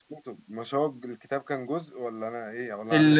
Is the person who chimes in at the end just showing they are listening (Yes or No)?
No